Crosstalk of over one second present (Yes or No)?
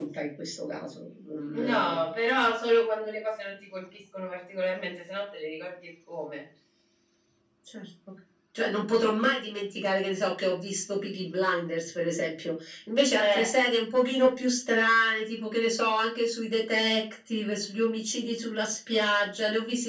No